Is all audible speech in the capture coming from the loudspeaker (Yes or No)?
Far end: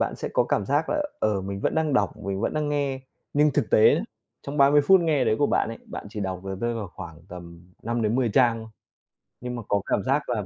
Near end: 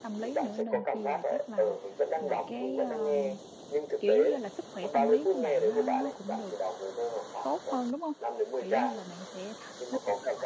No